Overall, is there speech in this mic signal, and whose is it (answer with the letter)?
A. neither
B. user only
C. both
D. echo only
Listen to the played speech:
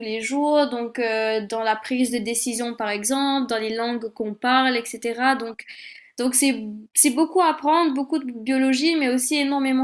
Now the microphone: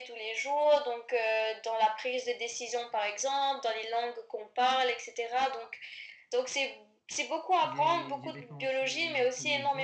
C